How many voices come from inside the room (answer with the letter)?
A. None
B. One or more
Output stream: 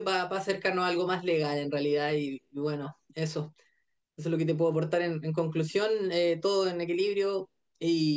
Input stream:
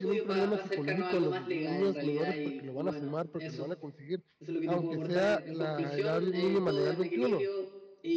B